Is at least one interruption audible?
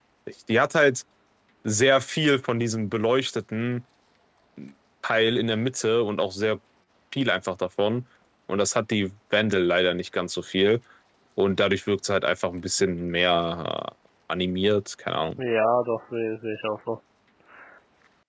No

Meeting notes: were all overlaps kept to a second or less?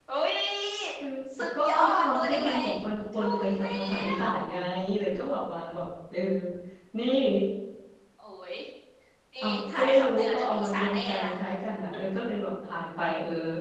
No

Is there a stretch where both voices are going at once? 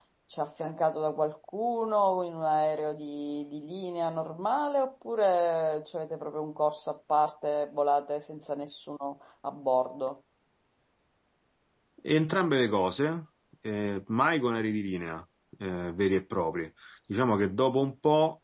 No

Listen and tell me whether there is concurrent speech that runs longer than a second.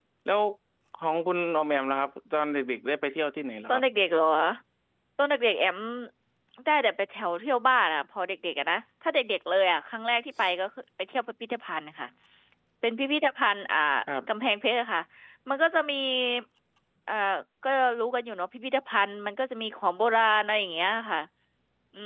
No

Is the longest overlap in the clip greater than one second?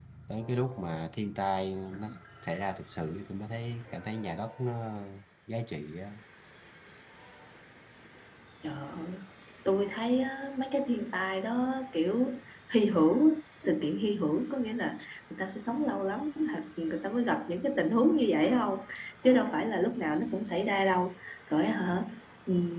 No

